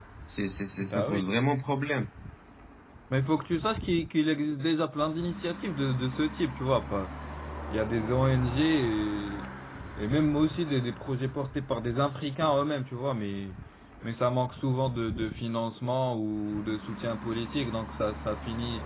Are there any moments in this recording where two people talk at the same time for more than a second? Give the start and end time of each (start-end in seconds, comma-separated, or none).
none